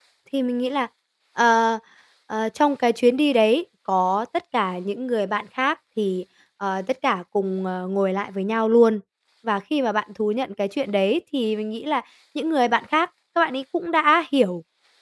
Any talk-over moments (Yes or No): No